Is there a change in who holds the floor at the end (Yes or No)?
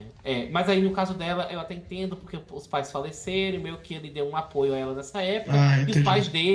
No